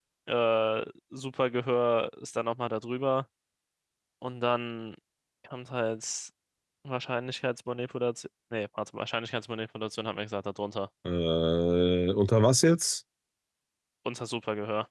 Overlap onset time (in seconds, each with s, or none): none